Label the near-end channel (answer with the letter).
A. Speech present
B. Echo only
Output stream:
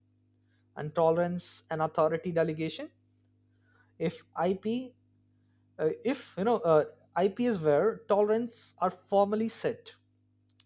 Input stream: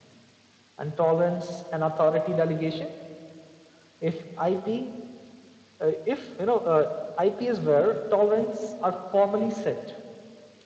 B